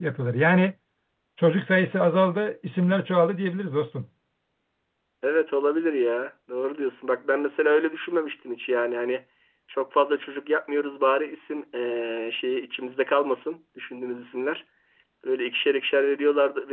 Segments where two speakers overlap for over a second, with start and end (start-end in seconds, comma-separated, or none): none